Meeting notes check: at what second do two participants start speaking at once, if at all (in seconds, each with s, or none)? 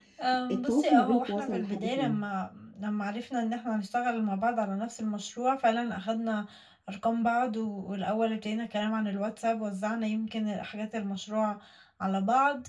0.5 s